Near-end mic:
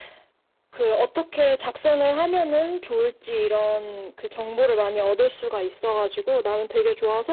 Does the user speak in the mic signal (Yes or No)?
No